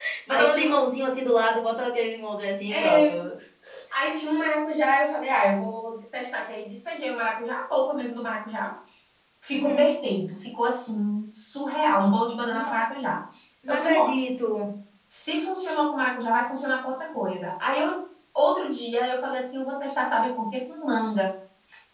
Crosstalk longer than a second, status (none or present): none